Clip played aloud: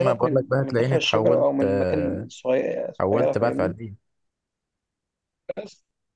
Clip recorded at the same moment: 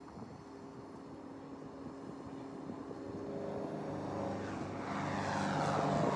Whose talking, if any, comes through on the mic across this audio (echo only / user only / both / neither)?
neither